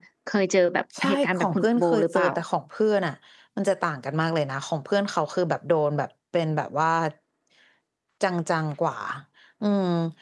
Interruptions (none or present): present